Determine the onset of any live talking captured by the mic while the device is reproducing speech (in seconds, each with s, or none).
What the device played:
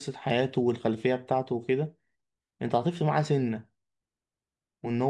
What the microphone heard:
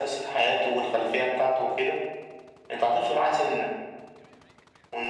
none